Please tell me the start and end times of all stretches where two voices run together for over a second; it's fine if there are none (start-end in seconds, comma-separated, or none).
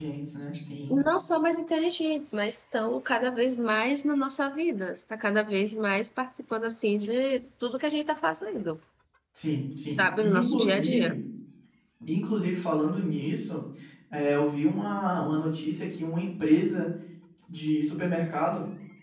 9.9-11.2